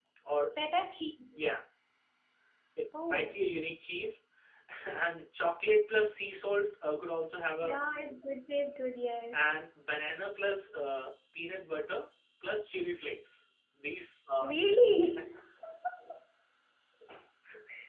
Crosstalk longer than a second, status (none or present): none